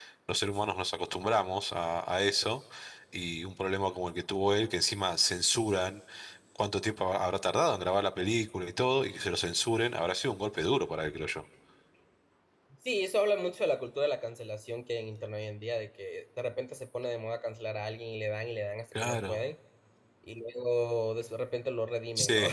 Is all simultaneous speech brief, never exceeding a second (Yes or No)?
Yes